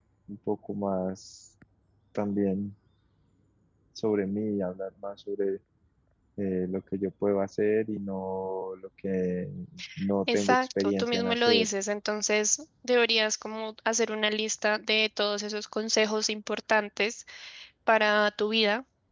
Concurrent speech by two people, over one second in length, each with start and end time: 10.3-11.7

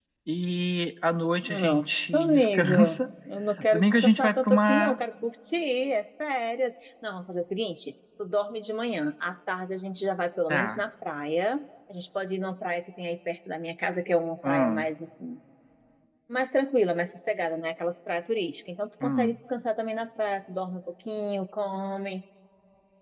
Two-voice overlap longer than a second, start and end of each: 1.5-2.7, 3.7-5.0

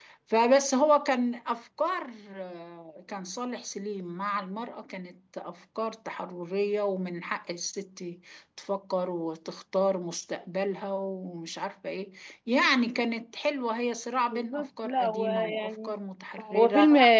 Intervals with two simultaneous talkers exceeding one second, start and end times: 14.3-16.0

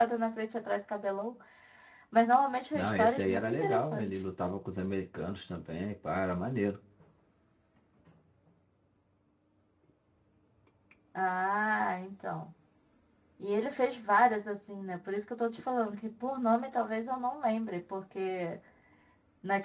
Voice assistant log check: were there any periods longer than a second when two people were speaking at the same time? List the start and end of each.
2.7-4.1

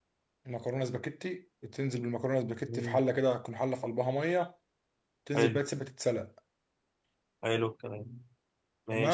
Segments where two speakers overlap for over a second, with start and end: none

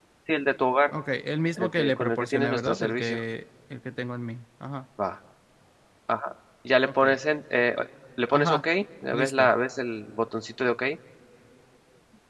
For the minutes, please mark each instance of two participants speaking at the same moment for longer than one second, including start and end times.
1.6-3.2

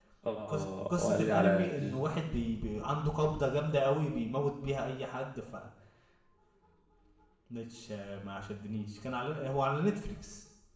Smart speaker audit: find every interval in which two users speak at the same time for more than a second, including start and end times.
0.5-2.0

